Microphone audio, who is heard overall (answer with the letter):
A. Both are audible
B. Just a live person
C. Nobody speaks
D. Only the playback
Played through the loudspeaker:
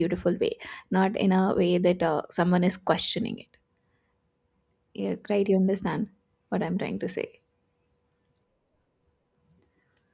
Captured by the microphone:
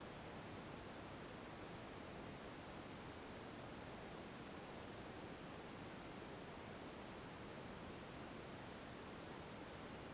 C